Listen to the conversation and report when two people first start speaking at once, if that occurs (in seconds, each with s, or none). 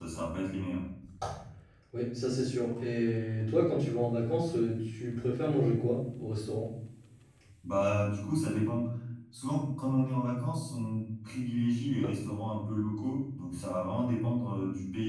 none